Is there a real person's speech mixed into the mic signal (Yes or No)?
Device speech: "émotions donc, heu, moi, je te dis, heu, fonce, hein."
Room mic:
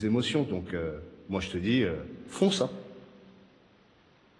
No